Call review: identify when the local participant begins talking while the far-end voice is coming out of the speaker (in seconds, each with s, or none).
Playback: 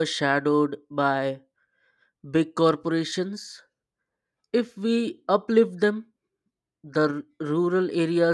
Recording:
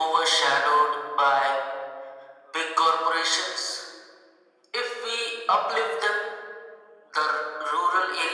none